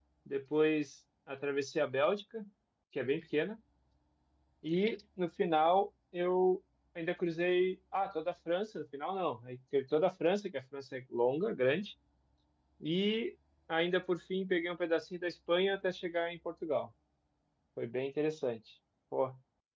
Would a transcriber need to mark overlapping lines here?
No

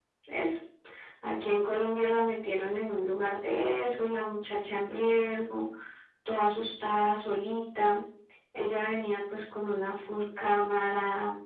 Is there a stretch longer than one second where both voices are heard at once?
No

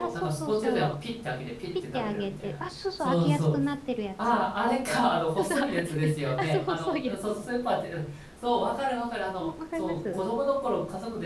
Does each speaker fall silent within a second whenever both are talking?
No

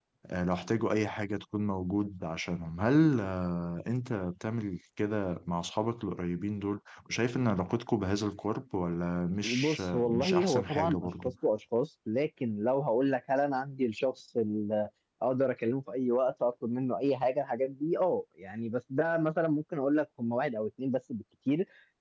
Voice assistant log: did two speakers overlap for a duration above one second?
Yes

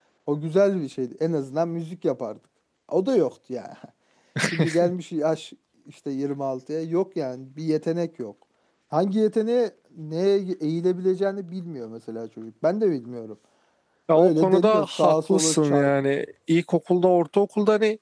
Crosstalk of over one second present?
Yes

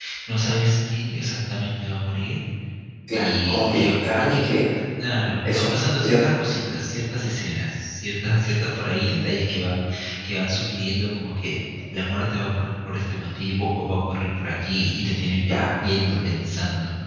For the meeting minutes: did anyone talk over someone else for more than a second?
Yes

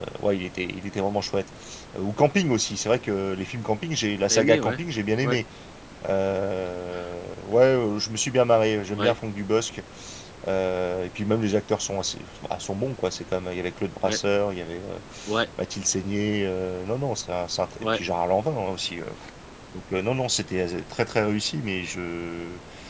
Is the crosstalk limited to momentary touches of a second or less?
Yes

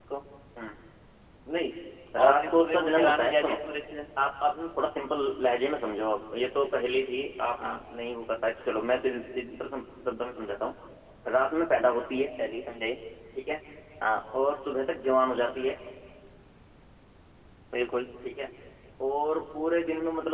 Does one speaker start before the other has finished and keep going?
Yes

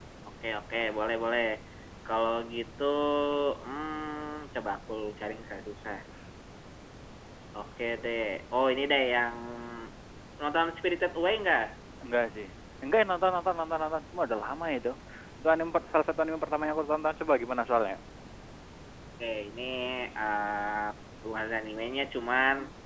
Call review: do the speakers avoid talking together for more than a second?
Yes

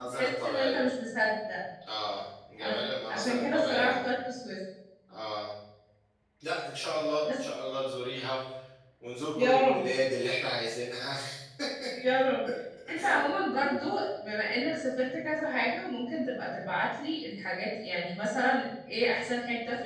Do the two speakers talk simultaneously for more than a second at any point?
Yes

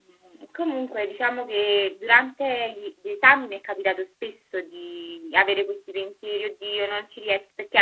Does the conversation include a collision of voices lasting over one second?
No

